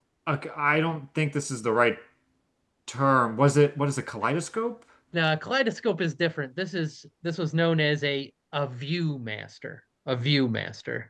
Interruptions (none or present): none